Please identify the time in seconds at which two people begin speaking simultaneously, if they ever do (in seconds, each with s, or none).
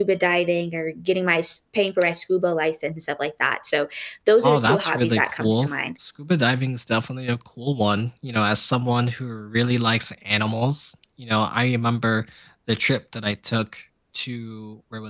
4.4 s